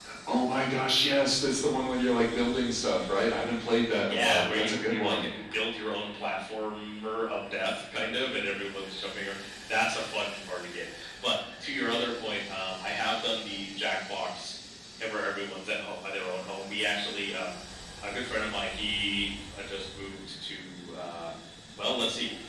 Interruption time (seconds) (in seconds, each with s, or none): 4.0 s